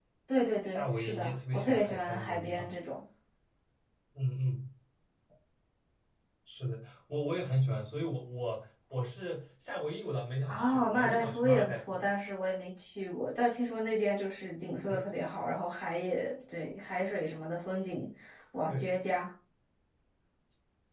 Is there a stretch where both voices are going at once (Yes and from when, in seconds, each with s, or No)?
Yes, from 0.6 s